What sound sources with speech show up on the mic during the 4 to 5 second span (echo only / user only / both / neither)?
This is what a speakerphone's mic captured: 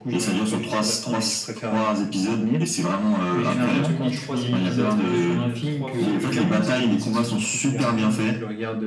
both